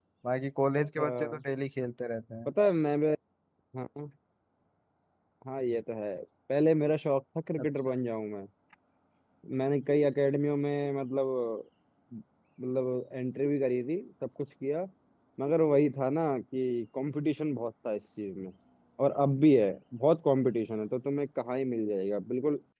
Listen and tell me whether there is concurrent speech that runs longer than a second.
No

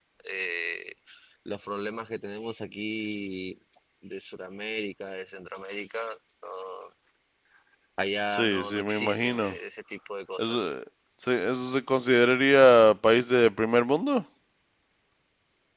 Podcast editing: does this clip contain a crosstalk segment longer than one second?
Yes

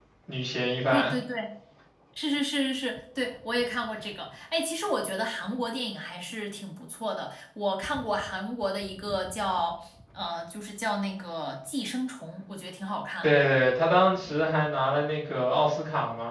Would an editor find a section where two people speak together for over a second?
No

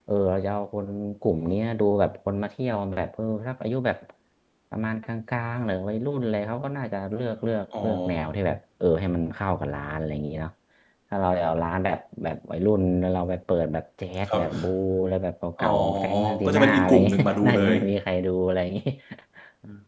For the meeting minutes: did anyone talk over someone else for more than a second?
Yes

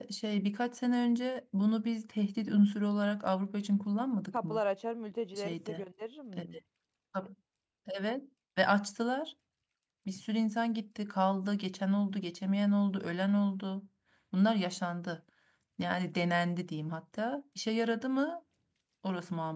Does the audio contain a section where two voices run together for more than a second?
No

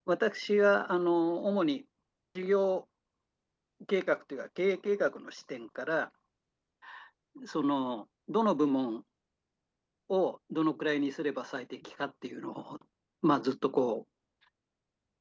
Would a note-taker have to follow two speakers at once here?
No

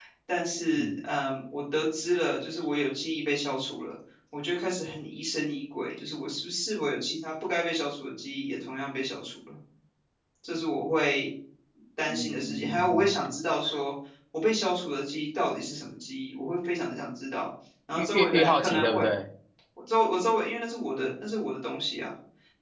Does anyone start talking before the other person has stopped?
Yes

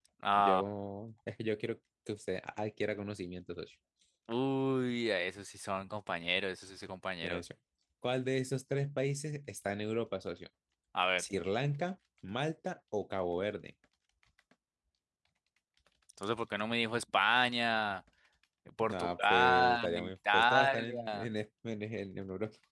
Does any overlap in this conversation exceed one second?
Yes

